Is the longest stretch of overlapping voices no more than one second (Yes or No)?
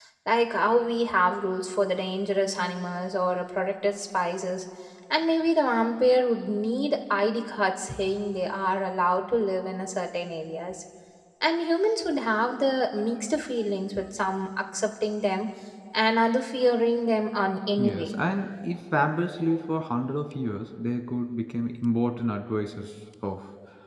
Yes